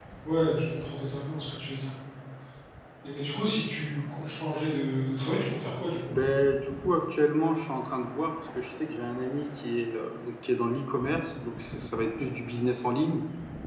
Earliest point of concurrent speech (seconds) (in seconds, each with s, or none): none